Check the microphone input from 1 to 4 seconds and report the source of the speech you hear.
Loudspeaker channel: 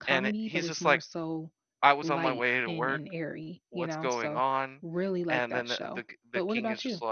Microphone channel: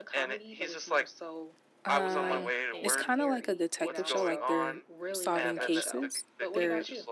both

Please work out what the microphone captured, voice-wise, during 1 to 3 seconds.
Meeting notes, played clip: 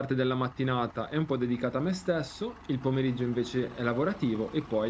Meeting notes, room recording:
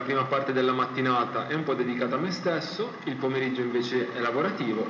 echo only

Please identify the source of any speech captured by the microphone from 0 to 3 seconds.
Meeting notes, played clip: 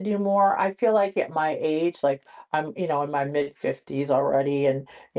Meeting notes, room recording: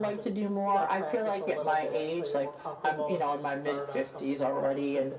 both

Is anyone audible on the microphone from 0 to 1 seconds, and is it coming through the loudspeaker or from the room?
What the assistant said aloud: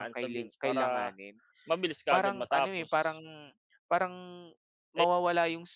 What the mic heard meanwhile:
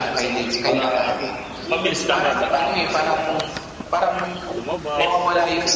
echo only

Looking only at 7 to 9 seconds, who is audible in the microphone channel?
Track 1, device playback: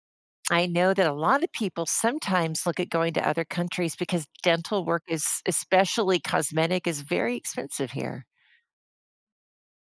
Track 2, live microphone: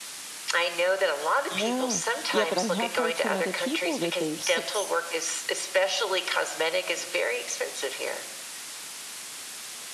echo only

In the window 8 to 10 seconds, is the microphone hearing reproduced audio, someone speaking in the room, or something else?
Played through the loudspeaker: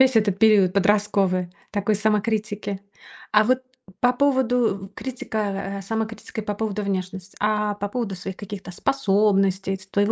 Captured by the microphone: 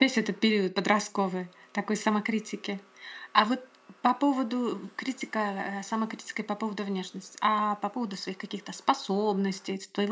echo only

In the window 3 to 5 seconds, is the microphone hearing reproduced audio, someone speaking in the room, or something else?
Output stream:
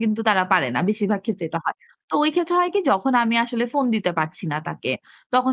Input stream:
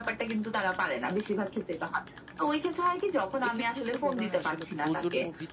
both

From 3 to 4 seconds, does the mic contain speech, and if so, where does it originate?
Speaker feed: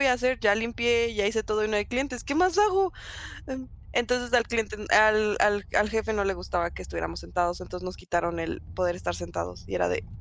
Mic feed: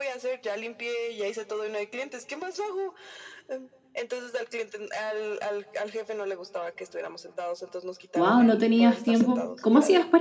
echo only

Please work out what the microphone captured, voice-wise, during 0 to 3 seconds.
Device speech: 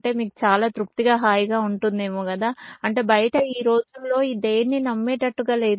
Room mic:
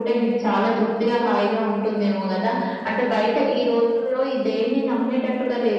echo only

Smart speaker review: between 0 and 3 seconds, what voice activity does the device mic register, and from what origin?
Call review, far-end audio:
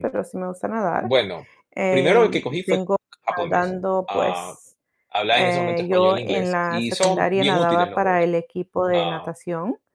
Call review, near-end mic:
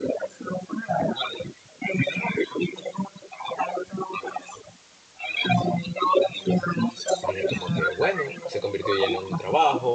echo only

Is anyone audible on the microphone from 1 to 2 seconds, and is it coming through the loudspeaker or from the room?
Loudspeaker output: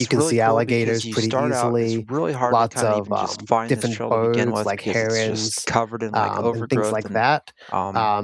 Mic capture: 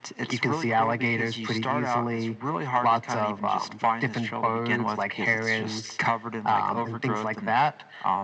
echo only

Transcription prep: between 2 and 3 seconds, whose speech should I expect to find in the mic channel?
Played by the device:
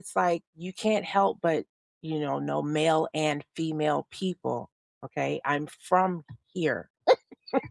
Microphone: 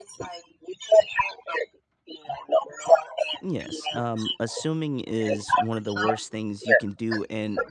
echo only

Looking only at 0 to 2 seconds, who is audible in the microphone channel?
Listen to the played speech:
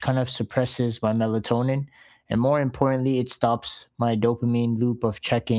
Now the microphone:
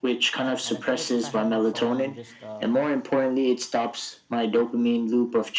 both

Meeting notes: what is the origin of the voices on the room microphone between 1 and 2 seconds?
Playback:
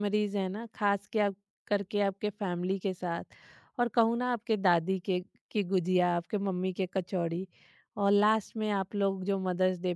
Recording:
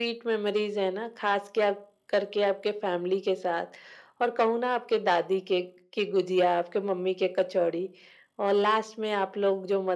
echo only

